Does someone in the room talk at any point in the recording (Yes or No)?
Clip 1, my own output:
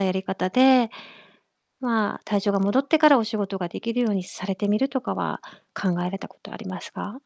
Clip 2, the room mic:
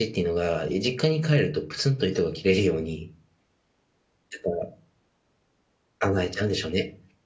Yes